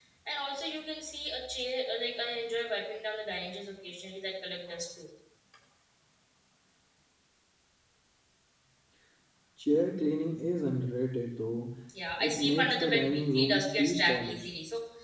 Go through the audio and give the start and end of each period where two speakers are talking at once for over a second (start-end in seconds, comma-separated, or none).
12.2-14.5